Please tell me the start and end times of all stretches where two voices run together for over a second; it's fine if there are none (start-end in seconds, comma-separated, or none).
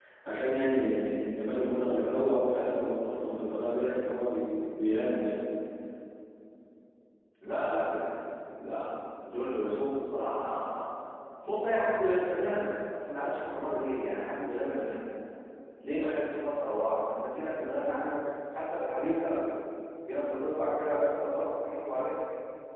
none